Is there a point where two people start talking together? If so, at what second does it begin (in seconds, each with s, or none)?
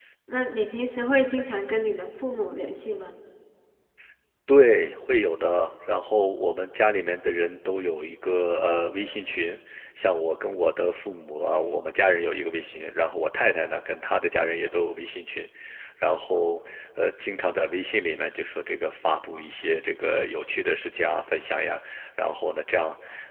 none